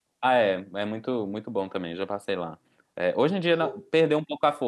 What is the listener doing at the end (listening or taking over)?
listening